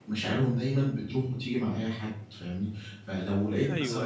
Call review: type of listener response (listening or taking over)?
taking over